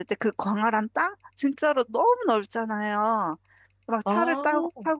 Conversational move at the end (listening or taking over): listening